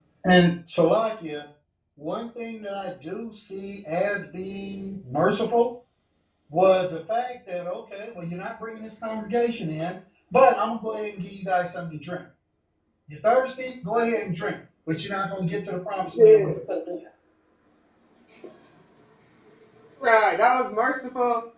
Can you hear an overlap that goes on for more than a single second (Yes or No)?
No